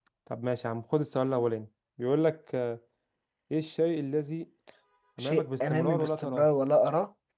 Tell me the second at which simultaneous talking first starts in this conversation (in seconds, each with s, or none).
5.2 s